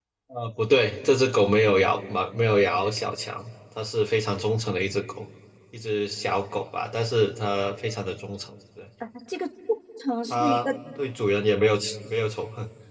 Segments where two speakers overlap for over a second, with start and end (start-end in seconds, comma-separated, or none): none